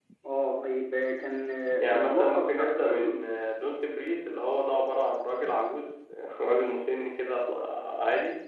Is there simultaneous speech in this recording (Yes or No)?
Yes